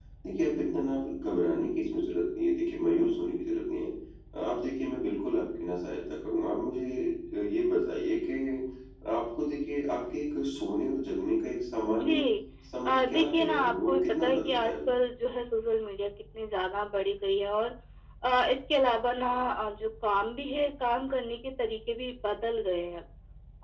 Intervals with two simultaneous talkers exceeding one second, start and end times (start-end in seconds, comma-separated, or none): 12.9-14.8